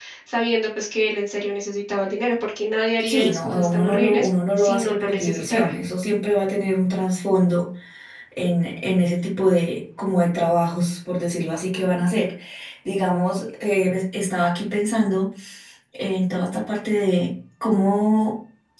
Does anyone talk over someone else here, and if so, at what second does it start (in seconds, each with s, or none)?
3.0 s